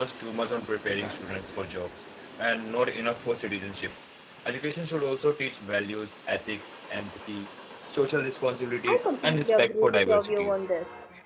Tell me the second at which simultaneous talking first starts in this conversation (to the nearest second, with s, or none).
9 s